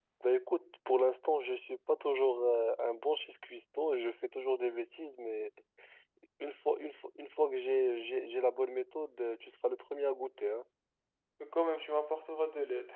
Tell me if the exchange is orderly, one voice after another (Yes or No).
Yes